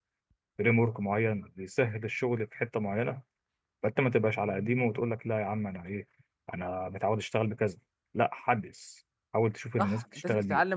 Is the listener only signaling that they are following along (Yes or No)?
No